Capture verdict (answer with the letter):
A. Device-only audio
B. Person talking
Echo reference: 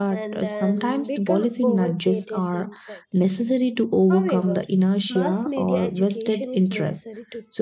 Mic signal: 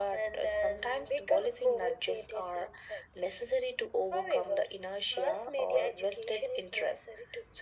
A